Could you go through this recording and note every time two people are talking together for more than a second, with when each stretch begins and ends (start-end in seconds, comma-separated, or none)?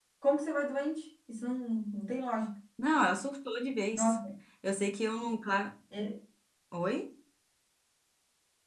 none